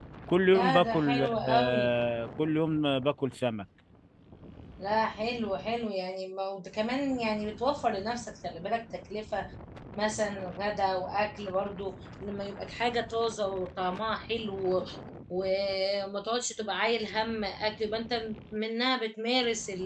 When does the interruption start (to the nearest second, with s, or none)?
1 s